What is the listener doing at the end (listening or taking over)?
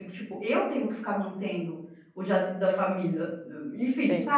taking over